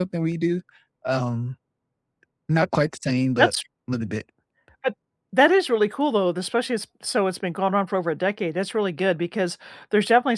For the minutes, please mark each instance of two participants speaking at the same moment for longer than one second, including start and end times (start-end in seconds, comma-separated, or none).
none